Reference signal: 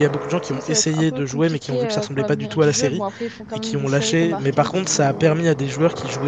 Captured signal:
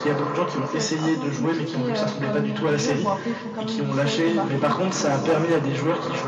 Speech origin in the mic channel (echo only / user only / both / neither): echo only